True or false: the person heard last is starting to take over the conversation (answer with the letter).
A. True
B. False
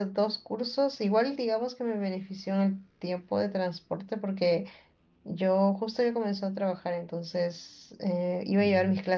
B